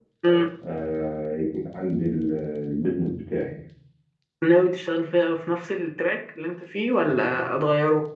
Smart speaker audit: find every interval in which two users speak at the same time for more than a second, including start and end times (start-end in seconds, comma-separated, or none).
none